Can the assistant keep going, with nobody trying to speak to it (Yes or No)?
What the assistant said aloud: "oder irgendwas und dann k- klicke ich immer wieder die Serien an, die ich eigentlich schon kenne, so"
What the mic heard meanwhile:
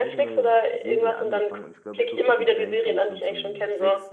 No